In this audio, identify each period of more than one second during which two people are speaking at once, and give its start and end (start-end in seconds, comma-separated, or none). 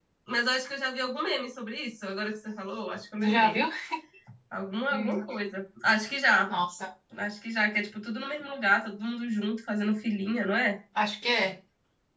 none